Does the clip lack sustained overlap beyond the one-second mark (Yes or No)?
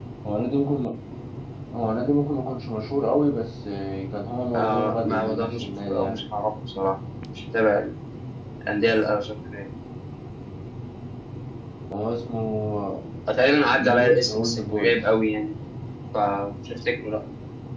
No